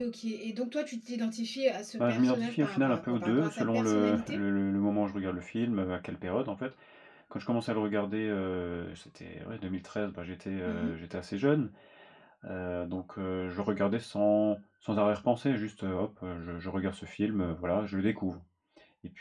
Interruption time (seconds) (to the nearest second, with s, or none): 2 s